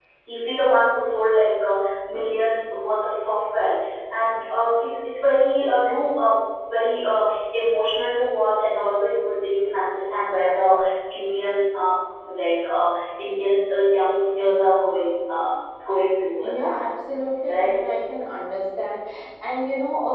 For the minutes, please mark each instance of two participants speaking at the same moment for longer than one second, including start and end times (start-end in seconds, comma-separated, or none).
none